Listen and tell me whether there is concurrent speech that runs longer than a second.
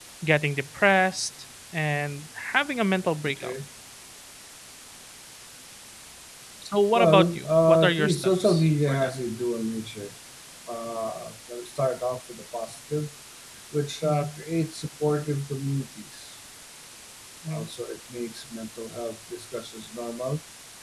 Yes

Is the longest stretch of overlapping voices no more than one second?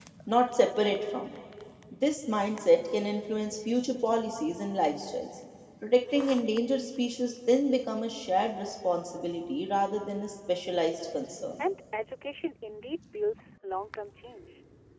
Yes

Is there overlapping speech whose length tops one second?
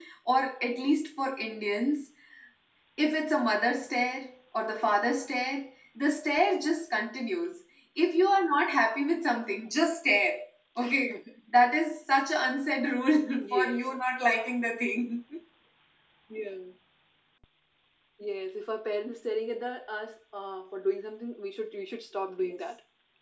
No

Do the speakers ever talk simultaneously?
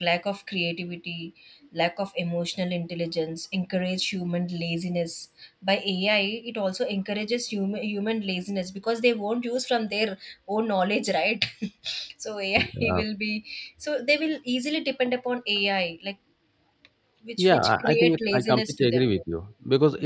Yes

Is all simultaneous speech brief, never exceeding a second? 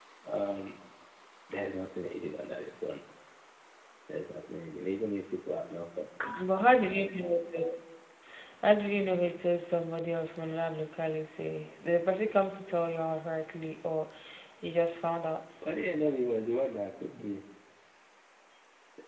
Yes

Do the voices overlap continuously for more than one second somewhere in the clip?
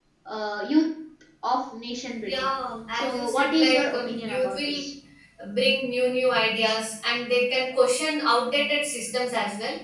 Yes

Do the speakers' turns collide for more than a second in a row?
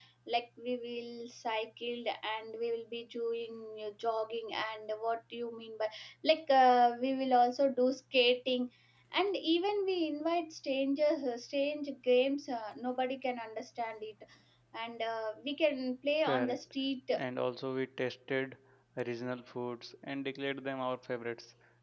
No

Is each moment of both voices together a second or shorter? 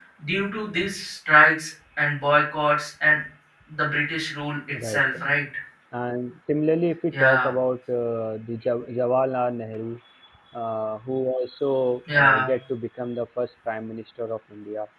Yes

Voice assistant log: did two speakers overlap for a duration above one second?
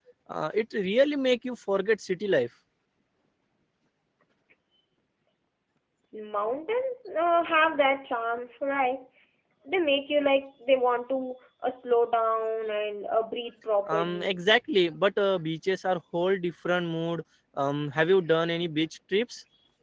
No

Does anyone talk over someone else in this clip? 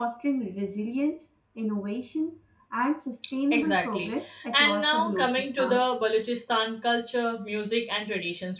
Yes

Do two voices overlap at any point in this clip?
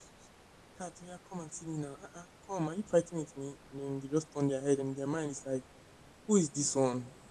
No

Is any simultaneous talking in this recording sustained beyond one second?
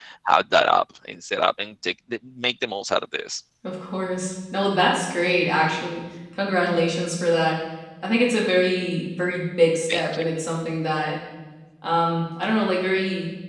No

